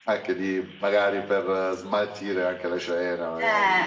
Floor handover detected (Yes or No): Yes